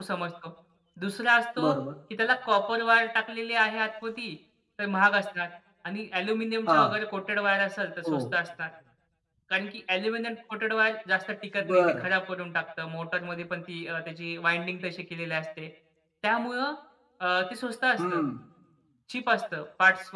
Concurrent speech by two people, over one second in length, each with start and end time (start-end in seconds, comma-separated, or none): none